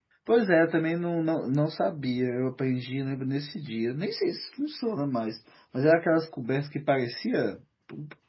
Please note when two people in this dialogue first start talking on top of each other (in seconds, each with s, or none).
none